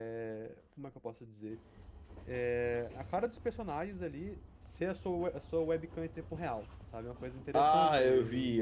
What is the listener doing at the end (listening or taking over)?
taking over